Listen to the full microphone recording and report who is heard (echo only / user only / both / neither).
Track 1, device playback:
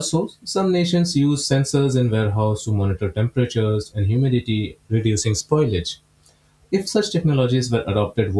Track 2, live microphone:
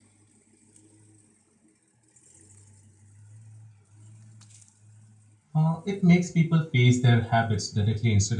user only